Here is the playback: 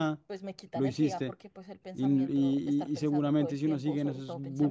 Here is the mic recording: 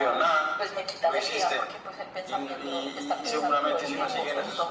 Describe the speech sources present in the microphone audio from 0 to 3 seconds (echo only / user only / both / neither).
echo only